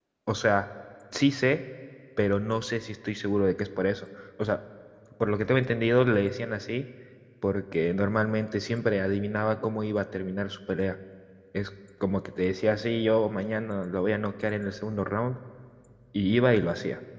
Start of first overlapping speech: none

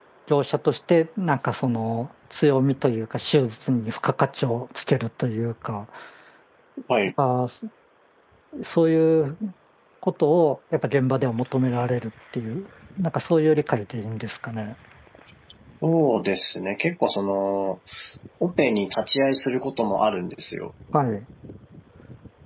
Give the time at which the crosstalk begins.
none

